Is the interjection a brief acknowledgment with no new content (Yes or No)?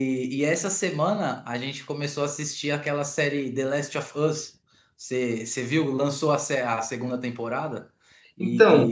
Yes